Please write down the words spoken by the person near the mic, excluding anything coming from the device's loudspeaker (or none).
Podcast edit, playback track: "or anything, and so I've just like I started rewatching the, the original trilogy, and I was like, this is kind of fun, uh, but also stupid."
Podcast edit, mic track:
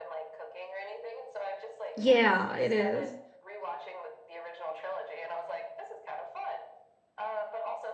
Yeah, it is.